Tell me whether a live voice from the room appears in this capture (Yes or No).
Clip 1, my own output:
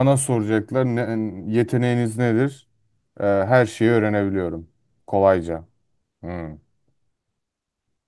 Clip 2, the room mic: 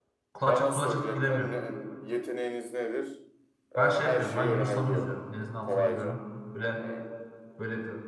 Yes